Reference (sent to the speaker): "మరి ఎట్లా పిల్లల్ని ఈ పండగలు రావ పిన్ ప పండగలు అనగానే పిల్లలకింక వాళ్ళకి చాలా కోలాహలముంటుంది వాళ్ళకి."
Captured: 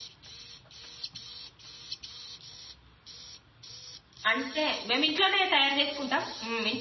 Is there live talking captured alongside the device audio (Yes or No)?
Yes